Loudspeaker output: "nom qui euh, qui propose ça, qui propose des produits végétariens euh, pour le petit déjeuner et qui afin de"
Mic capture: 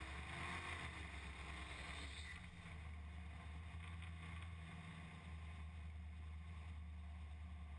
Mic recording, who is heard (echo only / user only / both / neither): neither